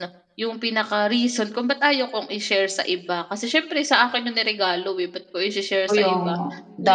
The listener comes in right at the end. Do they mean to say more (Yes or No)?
Yes